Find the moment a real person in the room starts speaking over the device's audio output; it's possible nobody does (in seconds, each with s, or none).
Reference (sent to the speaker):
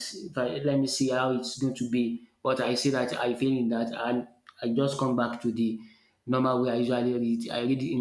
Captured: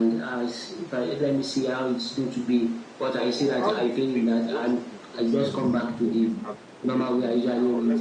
3.3 s